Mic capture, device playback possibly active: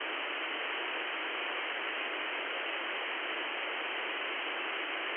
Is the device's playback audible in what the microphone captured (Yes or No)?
No